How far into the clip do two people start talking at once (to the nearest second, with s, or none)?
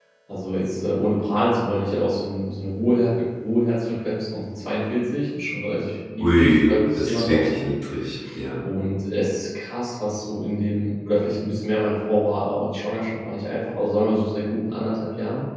6 s